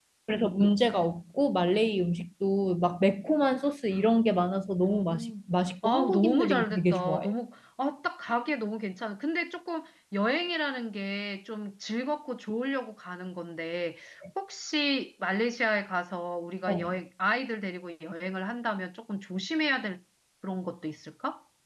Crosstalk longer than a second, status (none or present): present